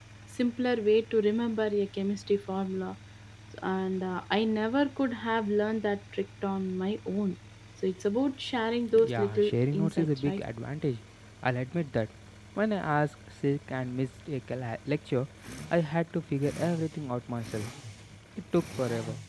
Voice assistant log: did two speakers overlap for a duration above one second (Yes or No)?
Yes